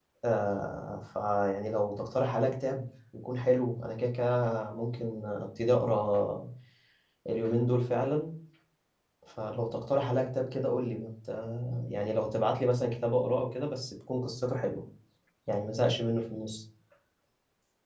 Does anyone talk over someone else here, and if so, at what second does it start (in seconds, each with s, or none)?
none